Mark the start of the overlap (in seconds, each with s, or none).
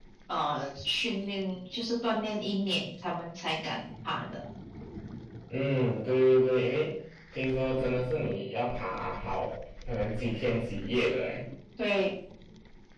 none